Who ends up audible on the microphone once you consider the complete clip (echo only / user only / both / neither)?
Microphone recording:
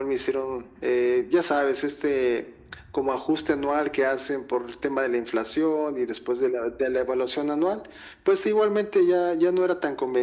echo only